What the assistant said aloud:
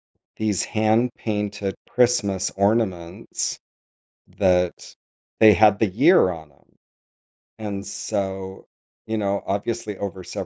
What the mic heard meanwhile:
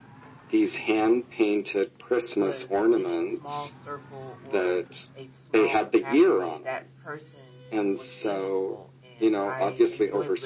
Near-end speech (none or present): present